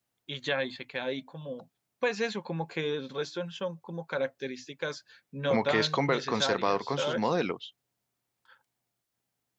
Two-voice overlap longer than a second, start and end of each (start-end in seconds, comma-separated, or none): 5.5-7.3